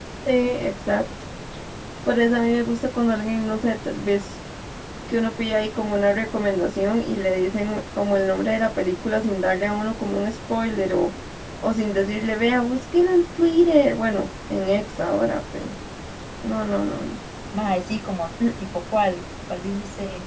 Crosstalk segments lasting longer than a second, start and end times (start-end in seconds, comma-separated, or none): none